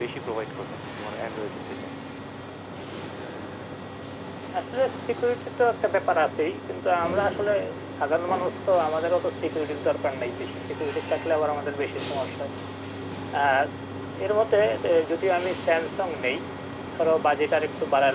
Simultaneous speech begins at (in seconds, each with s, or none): none